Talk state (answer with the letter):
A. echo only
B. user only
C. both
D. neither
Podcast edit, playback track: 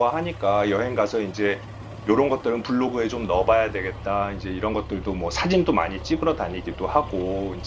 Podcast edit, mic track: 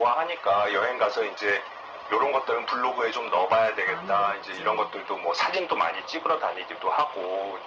C